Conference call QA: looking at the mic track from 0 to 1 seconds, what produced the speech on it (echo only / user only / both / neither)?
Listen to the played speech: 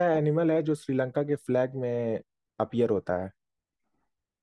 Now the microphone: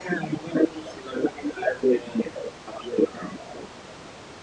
echo only